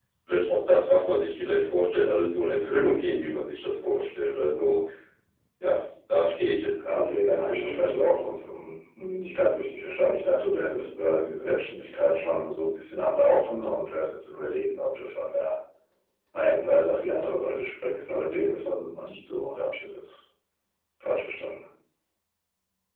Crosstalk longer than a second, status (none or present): present